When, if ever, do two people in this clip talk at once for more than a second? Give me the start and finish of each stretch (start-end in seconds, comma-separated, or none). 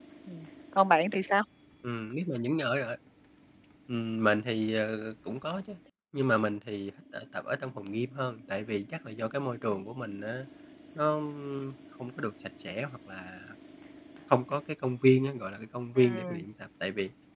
none